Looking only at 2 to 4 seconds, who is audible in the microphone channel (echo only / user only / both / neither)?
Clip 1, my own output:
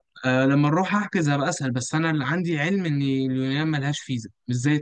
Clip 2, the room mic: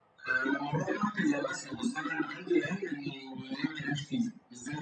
echo only